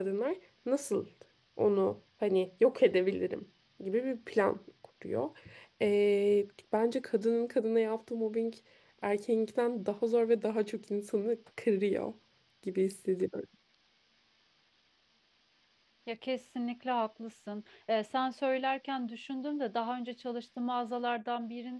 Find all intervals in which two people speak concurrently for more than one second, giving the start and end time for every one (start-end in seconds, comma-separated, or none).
none